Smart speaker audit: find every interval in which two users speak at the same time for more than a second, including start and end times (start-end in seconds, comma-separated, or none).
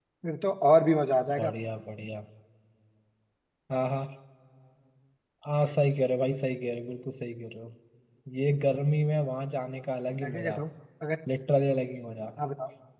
none